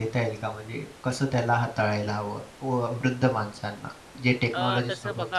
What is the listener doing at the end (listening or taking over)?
taking over